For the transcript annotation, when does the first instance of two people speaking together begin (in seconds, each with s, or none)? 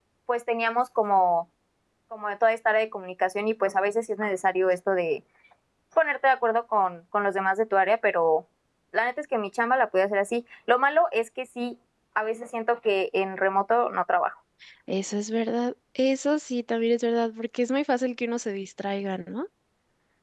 none